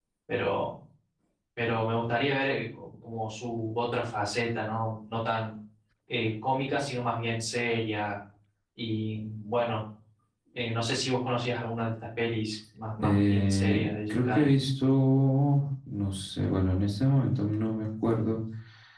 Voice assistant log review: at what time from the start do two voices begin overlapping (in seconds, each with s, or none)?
13.0 s